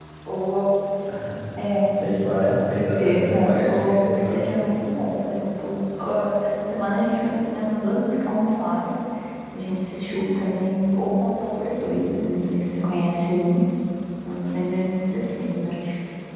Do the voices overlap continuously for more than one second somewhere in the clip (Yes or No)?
Yes